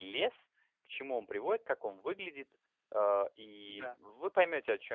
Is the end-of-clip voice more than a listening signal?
No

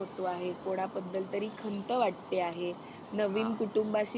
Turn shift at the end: No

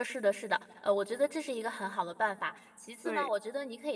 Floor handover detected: No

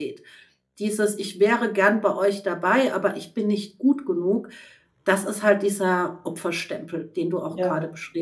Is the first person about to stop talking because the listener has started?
Yes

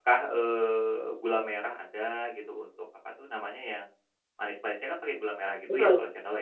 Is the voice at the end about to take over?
Yes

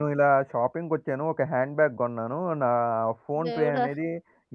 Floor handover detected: No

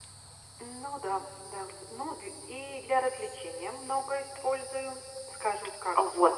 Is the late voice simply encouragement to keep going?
No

